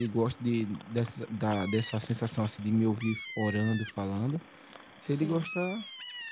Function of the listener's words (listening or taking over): listening